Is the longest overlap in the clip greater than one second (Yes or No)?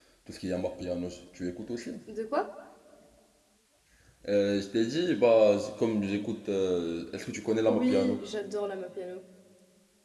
No